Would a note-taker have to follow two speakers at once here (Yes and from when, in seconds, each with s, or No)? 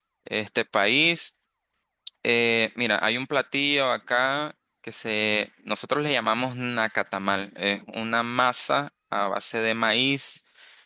No